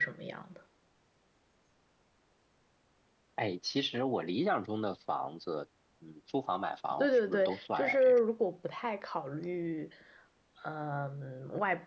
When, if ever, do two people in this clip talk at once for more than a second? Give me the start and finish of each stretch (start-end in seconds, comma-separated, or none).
7.0-8.2